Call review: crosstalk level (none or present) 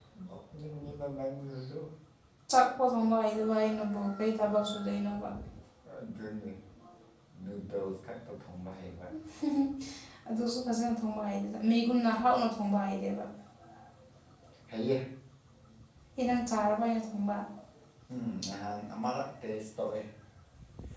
none